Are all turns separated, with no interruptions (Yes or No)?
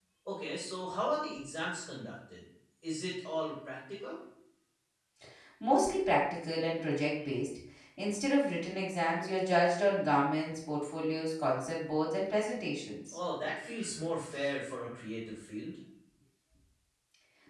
Yes